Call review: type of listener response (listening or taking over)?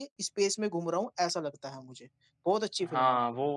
taking over